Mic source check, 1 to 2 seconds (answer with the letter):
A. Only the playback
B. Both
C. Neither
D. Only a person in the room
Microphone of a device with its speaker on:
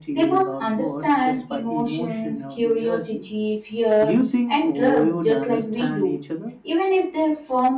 B